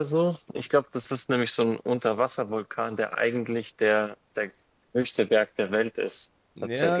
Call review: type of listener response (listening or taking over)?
taking over